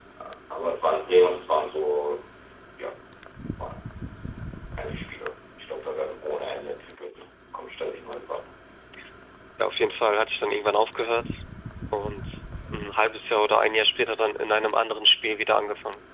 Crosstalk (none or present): none